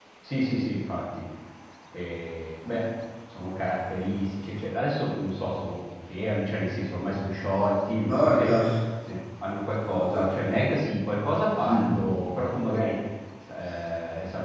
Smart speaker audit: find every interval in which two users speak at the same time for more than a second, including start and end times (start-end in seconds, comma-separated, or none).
none